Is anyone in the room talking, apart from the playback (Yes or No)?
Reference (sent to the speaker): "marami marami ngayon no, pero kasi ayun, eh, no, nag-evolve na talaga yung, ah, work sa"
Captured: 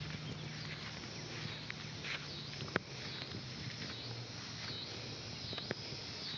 No